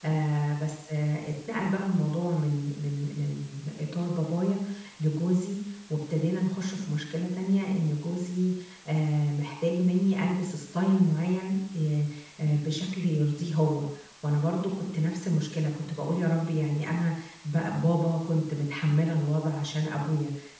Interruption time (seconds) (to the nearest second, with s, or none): none